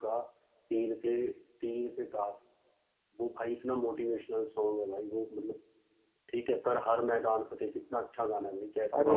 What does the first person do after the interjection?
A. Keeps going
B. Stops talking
B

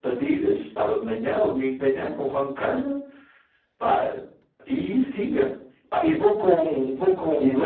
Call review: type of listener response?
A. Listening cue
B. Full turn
B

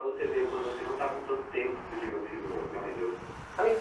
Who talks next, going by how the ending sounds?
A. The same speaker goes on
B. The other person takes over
B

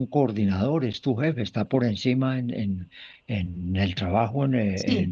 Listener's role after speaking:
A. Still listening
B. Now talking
A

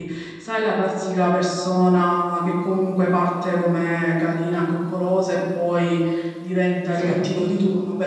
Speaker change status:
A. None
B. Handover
A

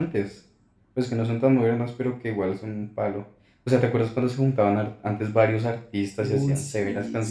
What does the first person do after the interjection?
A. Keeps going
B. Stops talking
B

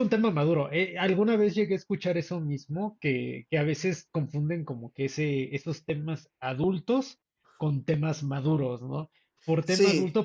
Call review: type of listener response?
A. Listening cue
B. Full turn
A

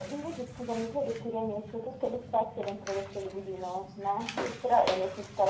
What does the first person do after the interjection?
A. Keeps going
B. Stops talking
A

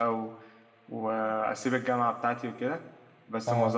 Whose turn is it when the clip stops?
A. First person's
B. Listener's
A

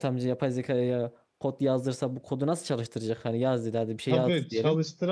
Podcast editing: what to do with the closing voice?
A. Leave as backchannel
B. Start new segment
B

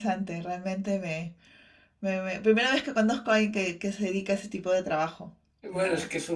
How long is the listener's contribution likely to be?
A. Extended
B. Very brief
A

